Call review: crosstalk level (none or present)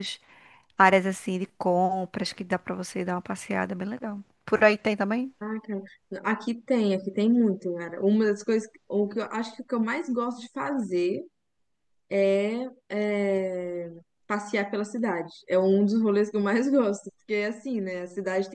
none